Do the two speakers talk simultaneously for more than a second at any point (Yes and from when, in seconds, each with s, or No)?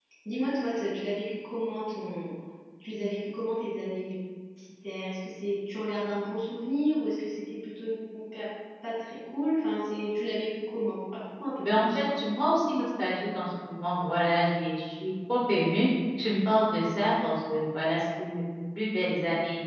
No